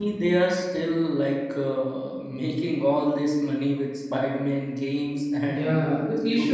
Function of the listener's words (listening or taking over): taking over